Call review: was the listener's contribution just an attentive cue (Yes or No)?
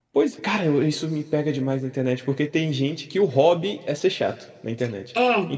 Yes